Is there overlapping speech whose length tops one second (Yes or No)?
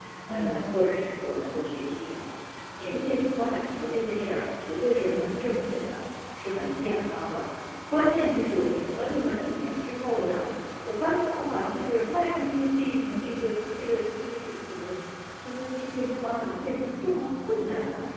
No